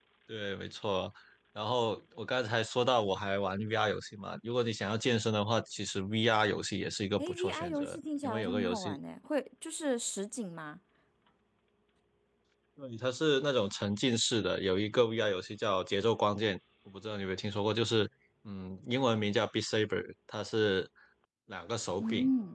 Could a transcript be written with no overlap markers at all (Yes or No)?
No